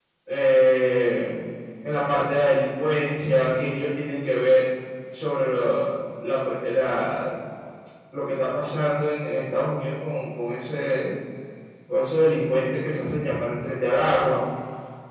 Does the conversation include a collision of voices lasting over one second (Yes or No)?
No